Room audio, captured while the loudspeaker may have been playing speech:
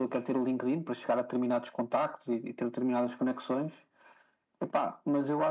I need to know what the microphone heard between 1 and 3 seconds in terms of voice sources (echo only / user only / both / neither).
echo only